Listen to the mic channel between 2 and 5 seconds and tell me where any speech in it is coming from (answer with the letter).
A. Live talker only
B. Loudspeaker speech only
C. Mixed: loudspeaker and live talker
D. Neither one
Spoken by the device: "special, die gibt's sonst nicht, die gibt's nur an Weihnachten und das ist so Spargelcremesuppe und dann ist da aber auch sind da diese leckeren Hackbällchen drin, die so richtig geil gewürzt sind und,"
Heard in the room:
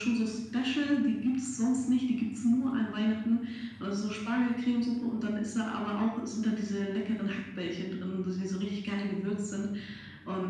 B